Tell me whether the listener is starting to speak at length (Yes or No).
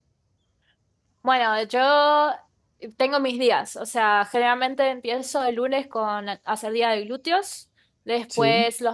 No